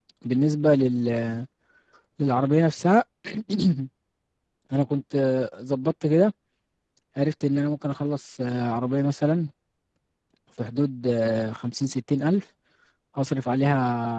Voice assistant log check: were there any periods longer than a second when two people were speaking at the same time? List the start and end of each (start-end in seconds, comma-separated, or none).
none